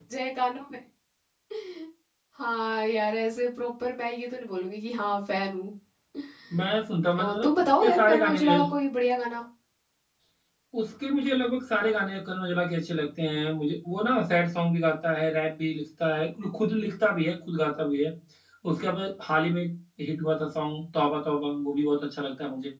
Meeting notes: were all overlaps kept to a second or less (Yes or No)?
No